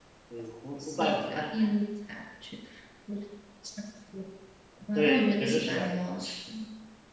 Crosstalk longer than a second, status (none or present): present